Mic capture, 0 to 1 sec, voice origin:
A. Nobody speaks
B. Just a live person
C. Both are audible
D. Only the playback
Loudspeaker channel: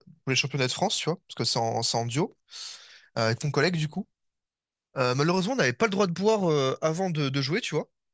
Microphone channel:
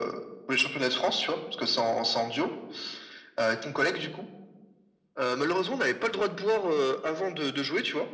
D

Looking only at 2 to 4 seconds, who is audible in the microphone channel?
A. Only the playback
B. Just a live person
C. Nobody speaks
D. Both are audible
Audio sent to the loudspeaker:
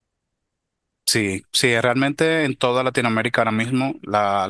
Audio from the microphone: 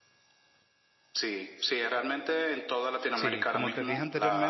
D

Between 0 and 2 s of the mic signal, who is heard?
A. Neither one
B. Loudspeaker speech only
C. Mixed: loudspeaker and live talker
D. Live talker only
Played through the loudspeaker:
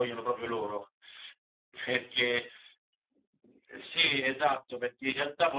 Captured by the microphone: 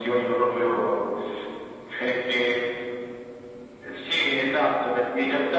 B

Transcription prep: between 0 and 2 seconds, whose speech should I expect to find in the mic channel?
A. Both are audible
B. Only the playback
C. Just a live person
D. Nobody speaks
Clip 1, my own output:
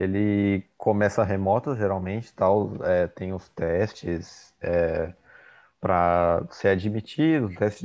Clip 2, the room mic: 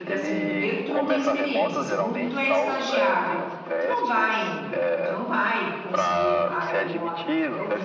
A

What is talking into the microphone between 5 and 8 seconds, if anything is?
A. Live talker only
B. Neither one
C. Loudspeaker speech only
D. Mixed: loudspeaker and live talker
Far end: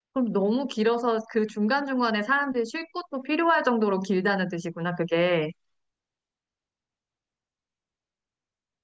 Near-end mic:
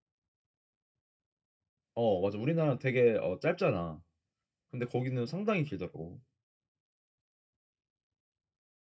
A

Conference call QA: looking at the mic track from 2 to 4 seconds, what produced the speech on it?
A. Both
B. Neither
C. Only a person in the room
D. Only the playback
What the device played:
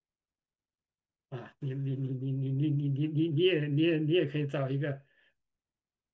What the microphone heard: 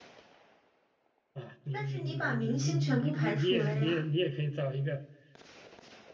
A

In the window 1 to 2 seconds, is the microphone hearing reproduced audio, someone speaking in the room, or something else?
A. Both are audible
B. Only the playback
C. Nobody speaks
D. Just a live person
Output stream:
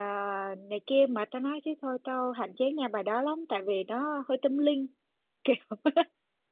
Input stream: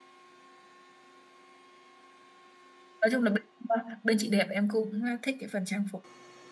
C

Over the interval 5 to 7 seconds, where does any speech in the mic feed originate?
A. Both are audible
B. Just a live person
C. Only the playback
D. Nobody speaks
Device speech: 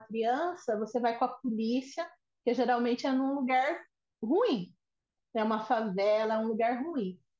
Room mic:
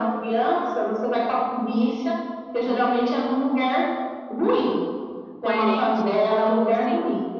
A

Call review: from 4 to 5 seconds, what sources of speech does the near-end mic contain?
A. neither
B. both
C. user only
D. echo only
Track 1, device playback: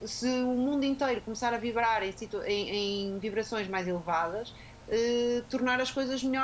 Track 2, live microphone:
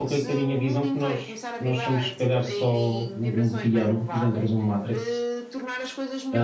B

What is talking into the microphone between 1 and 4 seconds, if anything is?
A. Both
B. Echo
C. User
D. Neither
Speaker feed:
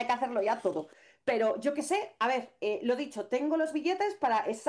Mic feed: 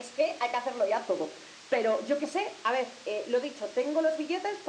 B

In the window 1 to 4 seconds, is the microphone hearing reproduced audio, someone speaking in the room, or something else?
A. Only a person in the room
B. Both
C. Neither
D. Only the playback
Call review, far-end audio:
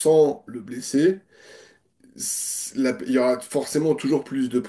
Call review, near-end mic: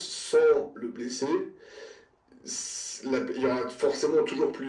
D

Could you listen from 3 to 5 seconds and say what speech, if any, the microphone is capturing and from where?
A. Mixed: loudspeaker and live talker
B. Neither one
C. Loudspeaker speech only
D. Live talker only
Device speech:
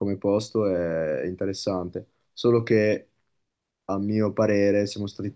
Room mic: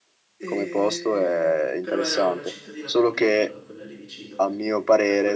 A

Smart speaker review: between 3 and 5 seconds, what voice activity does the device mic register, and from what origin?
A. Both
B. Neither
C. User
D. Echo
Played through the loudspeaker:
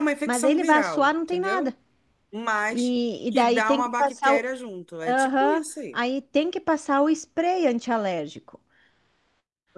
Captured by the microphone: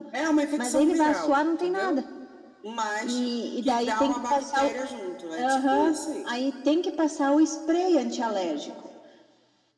D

